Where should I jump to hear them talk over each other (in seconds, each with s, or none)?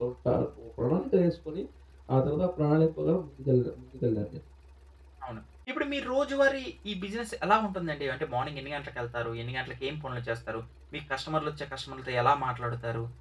none